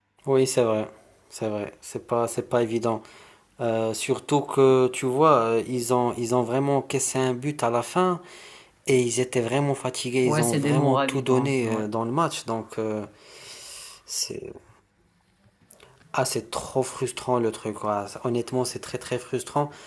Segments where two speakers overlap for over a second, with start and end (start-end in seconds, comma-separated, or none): 10.2-11.8